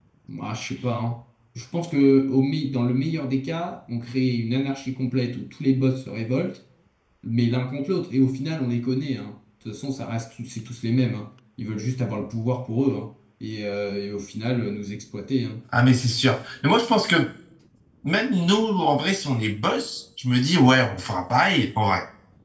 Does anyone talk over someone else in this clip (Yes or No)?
No